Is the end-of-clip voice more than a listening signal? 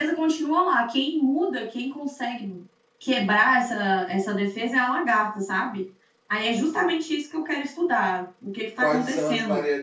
Yes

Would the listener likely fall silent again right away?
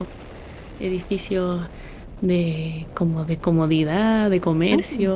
No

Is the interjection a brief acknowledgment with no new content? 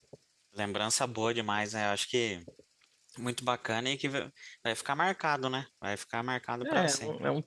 No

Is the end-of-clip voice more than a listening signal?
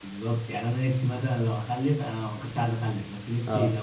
No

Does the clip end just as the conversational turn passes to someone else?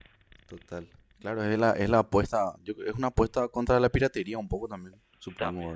Yes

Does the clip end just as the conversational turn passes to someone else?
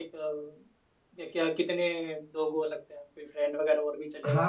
Yes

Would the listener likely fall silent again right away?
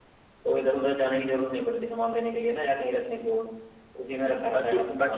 No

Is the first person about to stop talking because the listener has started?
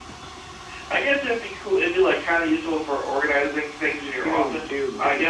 Yes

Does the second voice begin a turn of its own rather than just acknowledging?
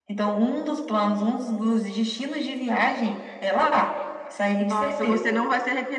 Yes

